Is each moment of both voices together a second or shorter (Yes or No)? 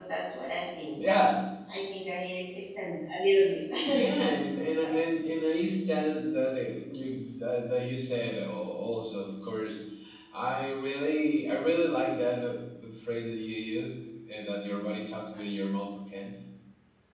Yes